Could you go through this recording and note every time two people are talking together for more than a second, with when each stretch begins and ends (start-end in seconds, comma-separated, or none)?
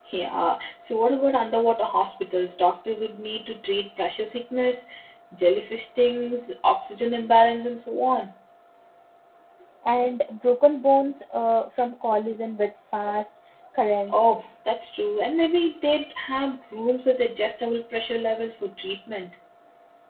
none